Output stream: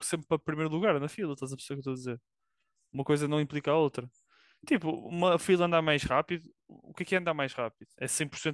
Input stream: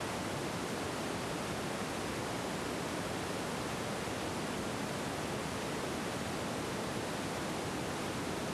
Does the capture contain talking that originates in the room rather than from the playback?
No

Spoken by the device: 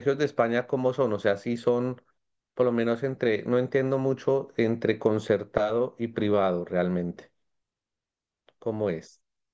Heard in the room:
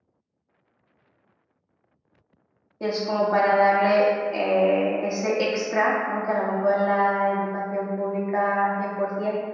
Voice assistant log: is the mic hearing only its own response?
No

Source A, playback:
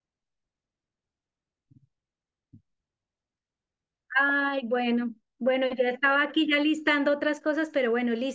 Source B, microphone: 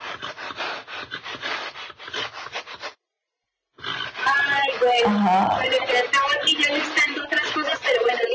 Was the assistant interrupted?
Yes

